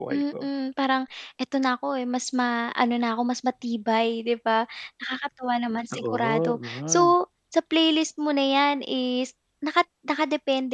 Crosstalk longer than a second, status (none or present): present